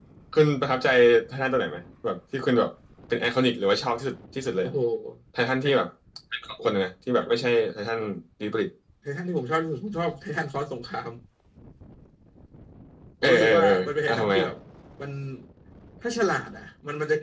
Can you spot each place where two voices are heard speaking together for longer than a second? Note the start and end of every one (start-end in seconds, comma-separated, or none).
13.2-14.5